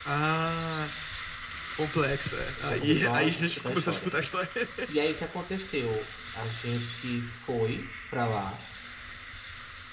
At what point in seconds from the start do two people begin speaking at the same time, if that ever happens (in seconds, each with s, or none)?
2.6 s